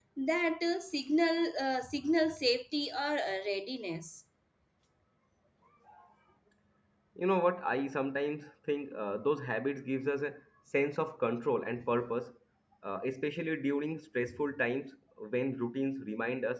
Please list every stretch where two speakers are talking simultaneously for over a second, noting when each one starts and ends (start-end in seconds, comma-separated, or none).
none